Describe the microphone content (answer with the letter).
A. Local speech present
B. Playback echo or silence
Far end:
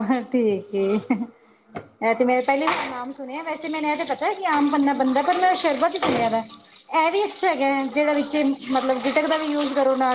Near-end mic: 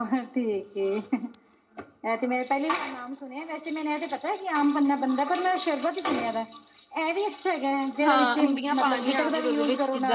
A